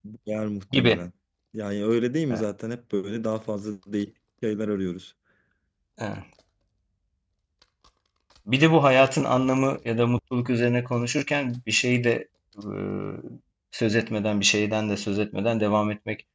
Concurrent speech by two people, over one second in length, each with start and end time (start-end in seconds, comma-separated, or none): none